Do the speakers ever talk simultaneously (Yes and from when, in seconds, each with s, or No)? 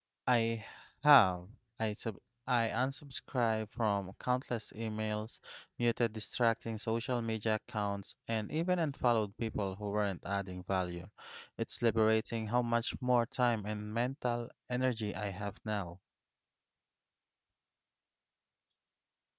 No